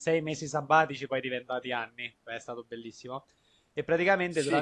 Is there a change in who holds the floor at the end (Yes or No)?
Yes